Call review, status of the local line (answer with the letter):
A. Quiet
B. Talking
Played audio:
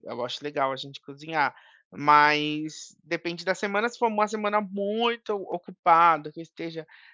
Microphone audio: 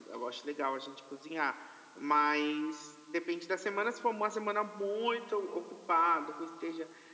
A